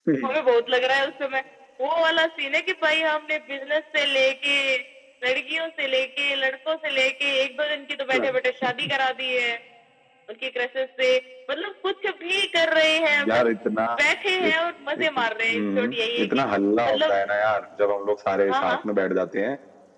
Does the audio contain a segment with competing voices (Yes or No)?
Yes